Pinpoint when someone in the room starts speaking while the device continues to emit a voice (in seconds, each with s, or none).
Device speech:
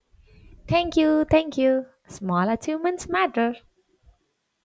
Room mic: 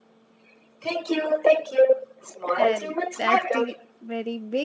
2.5 s